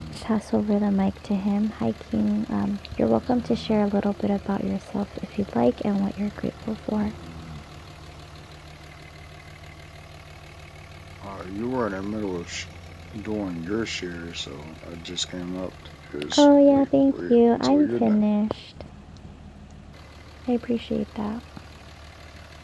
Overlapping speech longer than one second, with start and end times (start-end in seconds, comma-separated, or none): 16.4-18.2